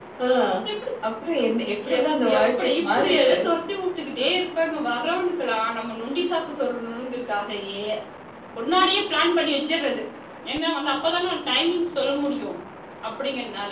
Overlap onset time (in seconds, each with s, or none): 2.0 s